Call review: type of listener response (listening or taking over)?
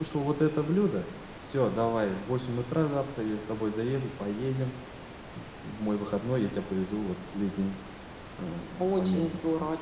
taking over